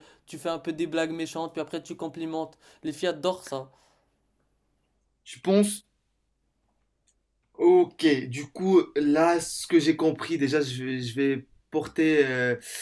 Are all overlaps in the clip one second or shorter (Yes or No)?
Yes